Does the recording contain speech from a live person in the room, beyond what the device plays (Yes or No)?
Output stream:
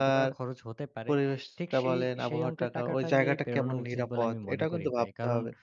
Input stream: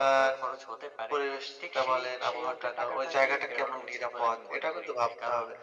No